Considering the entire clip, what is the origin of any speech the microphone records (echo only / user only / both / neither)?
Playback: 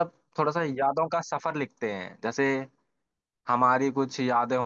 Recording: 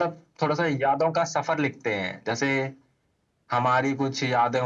echo only